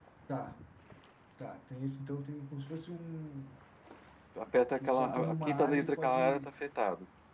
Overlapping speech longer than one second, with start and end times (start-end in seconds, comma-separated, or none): 4.8-6.5